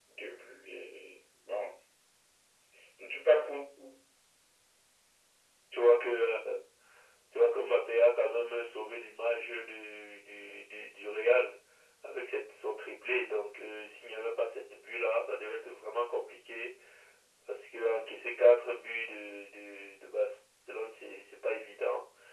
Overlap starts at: none

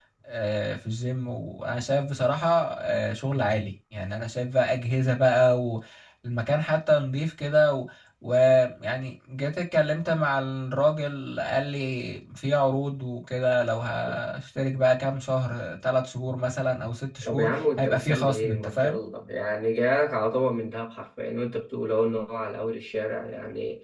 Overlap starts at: 17.2 s

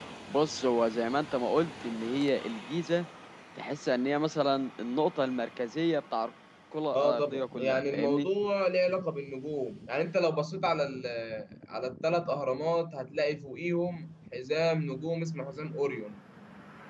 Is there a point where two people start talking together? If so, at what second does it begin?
6.9 s

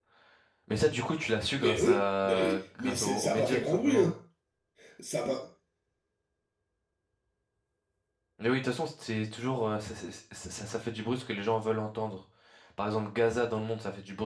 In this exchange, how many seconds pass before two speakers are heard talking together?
1.4 s

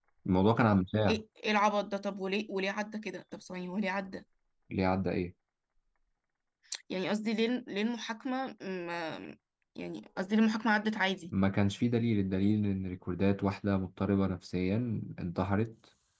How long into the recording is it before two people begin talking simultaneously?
none

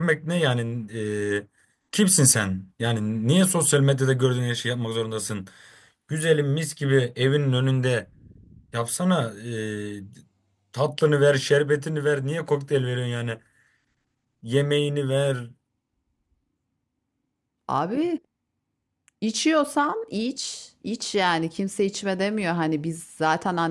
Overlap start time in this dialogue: none

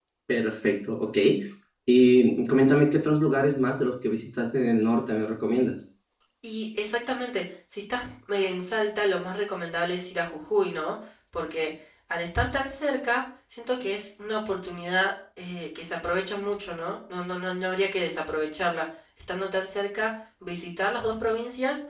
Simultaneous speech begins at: none

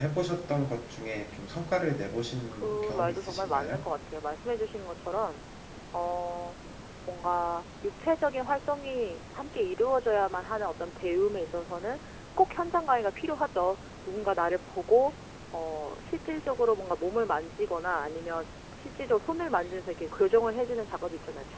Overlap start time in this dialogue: 2.6 s

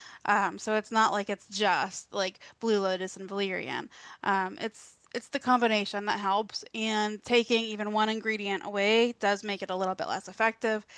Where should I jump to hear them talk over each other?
none

